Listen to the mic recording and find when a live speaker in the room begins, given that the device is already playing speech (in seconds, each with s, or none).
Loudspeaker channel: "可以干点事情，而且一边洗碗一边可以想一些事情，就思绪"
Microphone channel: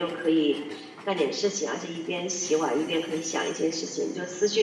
none